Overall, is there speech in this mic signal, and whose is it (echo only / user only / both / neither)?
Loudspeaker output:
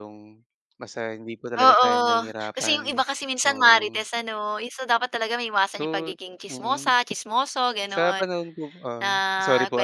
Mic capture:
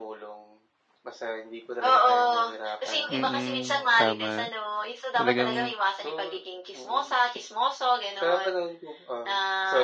both